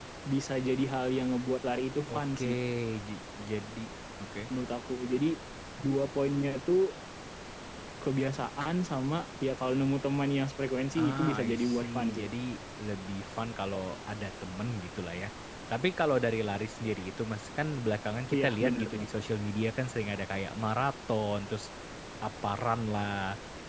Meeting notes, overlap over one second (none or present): present